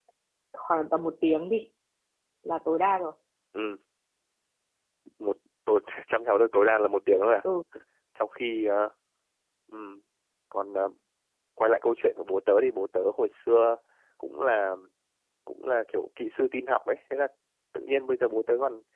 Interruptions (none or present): none